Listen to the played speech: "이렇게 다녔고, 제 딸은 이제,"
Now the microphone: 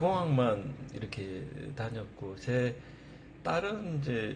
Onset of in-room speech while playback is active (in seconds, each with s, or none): none